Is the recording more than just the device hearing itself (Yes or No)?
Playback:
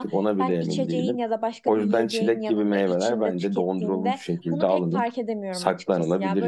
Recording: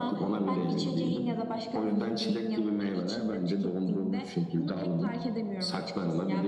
No